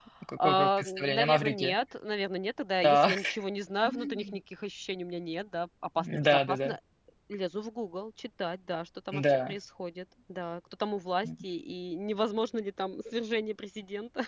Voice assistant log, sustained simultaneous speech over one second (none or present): present